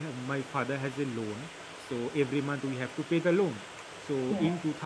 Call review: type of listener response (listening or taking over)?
listening